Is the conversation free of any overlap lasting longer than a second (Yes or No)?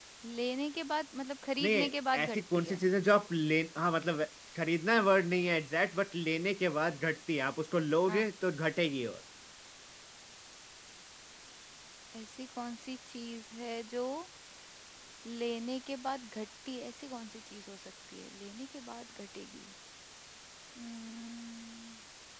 No